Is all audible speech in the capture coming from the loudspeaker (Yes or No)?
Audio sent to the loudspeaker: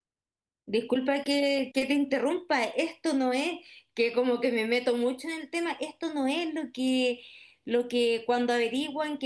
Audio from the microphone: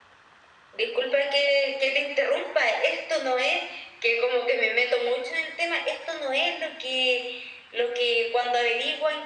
Yes